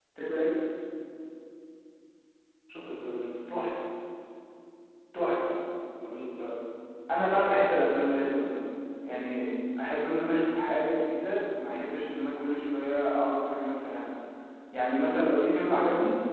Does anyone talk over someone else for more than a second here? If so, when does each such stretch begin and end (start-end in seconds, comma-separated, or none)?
none